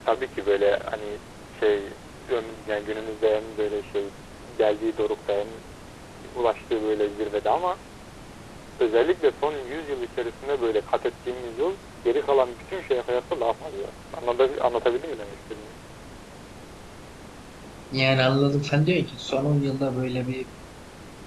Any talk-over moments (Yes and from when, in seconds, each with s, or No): No